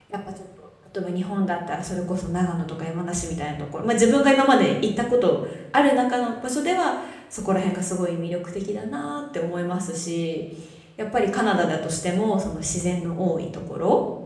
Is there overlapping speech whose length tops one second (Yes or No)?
No